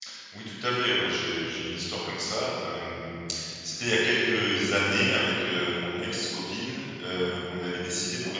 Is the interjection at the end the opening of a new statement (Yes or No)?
No